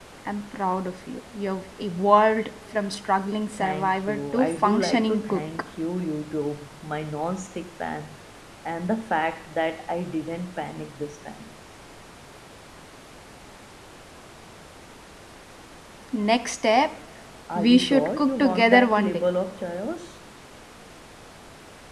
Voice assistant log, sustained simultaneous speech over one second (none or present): present